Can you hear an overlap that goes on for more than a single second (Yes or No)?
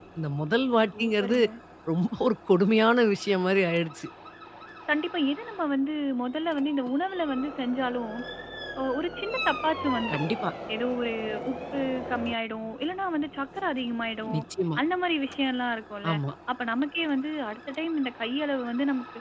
No